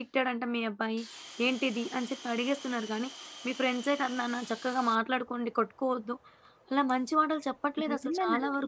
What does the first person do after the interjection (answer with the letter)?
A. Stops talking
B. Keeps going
A